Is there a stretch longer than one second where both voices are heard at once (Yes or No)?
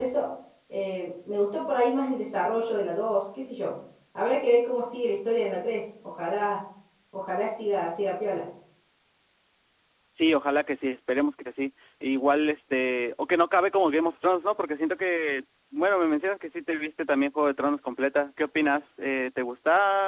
No